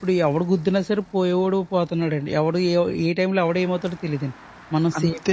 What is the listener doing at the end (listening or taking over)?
taking over